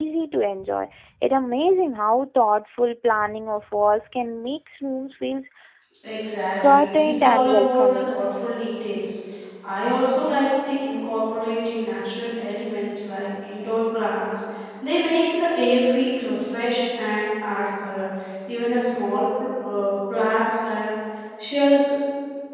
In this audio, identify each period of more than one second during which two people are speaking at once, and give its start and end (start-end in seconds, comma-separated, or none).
6.6-8.2